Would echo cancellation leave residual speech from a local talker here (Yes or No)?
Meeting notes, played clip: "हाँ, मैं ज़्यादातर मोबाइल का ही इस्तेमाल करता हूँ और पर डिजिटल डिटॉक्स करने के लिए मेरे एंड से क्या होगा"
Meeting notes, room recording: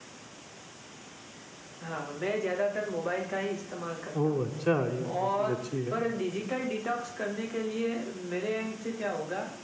Yes